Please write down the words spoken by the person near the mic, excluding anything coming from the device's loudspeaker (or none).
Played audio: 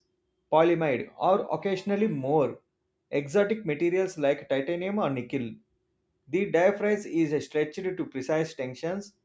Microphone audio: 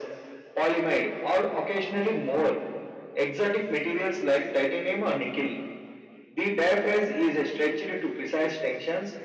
none